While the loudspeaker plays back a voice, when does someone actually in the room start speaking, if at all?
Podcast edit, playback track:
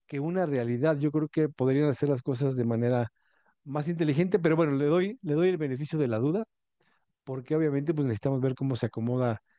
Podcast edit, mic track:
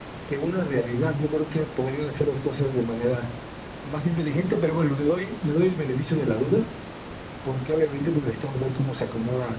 none

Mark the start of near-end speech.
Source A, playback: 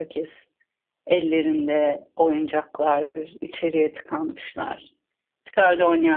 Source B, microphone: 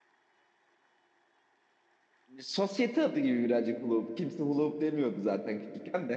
2 s

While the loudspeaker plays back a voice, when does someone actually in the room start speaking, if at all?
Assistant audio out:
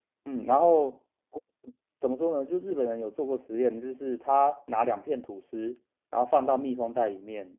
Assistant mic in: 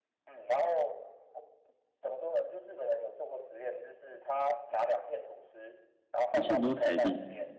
6 s

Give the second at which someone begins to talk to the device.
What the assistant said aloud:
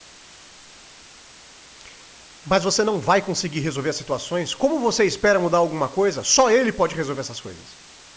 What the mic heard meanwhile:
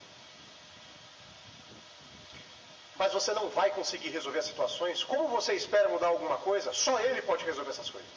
none

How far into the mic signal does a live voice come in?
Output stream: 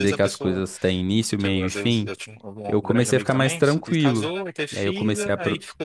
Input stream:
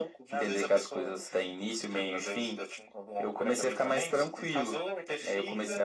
none

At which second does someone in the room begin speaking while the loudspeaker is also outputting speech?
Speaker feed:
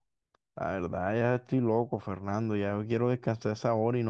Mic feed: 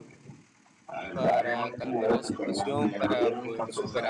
1 s

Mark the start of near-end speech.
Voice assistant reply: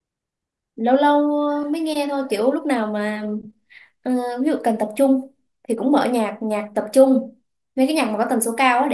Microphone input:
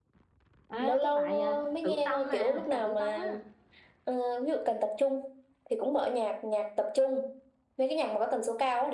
1 s

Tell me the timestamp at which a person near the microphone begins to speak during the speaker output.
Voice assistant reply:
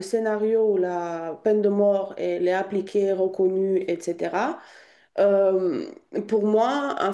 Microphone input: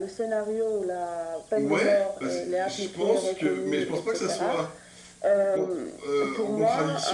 2 s

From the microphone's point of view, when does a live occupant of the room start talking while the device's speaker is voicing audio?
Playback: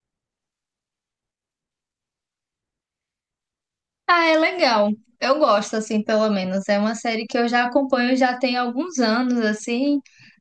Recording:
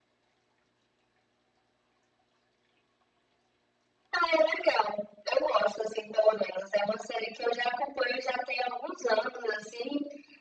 none

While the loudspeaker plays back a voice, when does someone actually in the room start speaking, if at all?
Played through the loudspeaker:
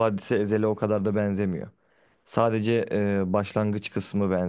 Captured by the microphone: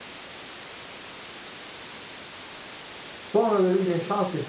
3 s

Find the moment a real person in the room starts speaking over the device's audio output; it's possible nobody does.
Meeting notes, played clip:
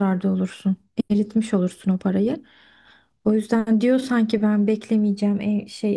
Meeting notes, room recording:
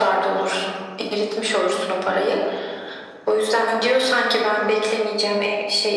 none

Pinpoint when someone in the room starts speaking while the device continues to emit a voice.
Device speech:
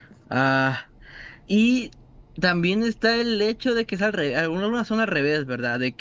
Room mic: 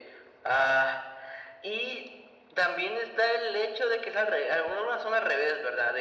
none

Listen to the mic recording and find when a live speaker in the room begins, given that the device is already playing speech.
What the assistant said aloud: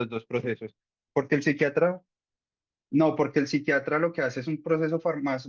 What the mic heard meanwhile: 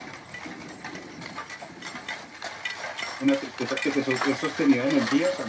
3 s

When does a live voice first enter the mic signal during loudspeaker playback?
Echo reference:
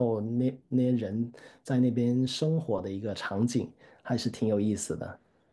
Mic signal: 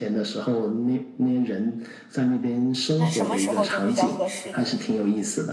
3 s

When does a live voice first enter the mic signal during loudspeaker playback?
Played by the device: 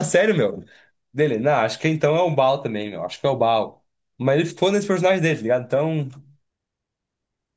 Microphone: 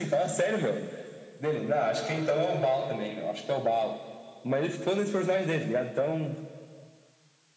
none

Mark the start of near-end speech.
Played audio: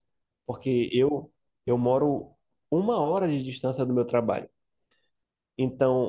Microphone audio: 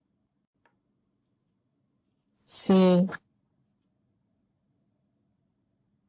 2 s

